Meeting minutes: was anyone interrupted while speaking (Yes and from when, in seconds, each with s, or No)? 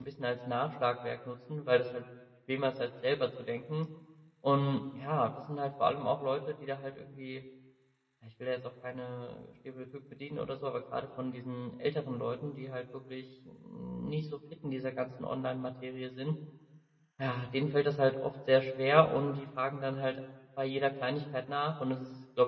No